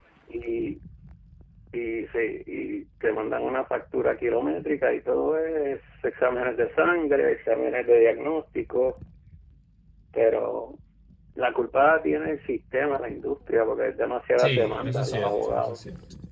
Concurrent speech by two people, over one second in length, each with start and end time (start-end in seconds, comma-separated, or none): 14.4-15.8